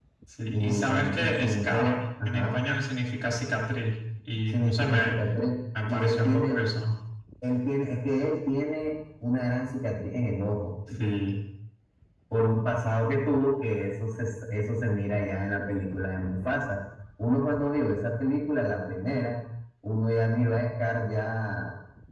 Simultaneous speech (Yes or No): Yes